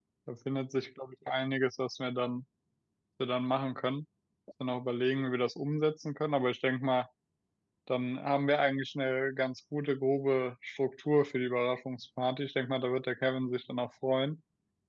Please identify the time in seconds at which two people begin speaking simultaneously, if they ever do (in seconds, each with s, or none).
none